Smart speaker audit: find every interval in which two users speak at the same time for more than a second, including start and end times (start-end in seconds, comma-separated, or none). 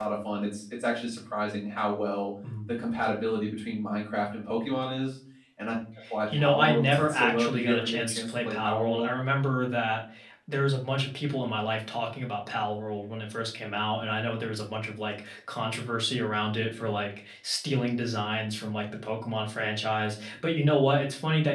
6.3-9.1